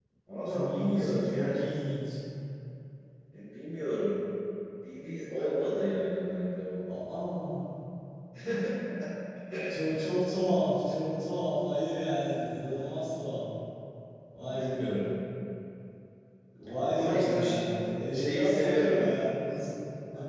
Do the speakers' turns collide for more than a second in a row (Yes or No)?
Yes